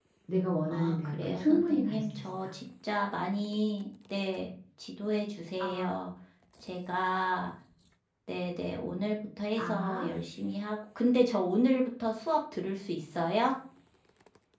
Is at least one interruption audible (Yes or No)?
Yes